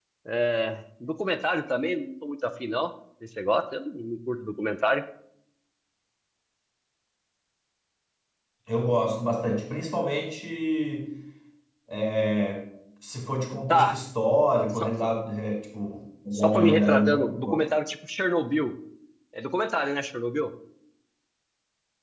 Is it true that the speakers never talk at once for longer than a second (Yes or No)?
No